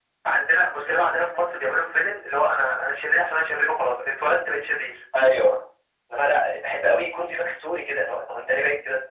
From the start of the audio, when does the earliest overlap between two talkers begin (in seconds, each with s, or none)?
none